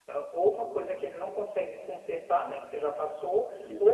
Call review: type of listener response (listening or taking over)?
listening